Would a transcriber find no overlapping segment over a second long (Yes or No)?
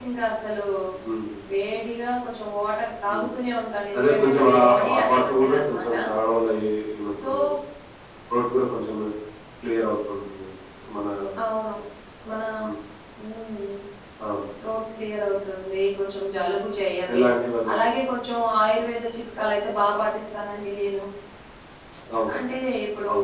No